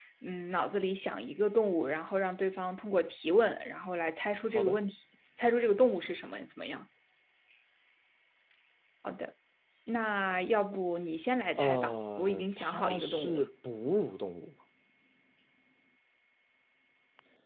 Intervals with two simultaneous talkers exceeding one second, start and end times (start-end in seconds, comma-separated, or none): 11.6-13.4